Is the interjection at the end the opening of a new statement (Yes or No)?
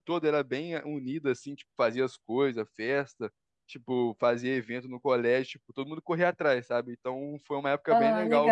No